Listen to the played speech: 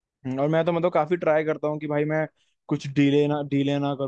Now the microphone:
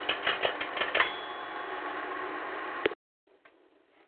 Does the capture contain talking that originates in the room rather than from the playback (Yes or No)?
No